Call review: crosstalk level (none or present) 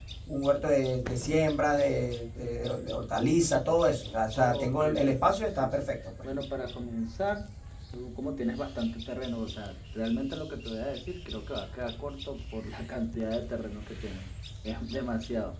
present